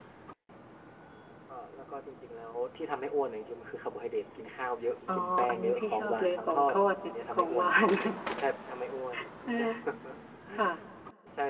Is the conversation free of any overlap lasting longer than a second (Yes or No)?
No